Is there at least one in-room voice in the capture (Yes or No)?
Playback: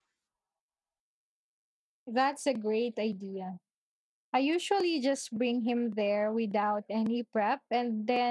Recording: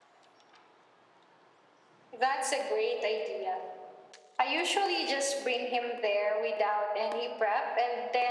No